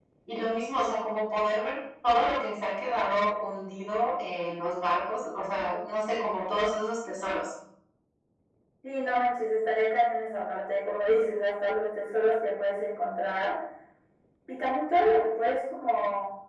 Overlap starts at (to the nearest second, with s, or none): none